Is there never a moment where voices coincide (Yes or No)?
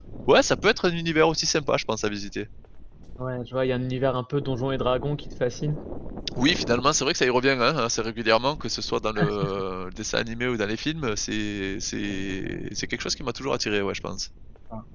Yes